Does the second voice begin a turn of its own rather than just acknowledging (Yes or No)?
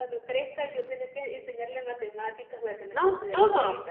Yes